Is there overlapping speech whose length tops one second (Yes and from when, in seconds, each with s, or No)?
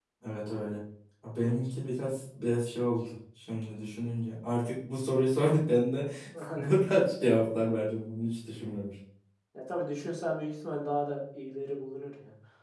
No